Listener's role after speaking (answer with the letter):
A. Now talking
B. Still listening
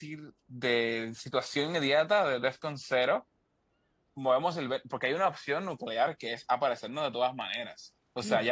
A